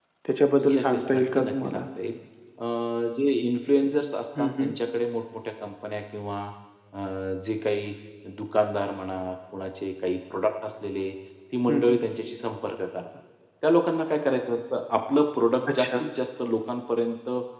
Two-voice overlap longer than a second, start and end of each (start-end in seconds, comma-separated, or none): 0.6-1.8